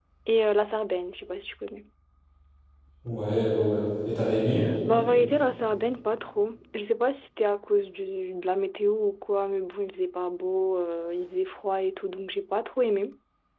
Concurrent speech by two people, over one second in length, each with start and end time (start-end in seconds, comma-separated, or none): none